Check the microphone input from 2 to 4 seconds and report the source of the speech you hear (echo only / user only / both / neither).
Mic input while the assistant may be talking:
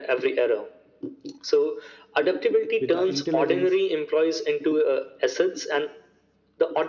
both